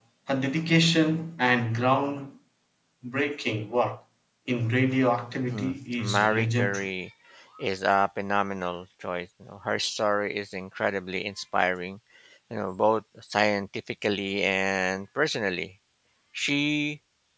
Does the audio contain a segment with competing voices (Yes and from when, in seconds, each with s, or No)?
Yes, from 5.5 s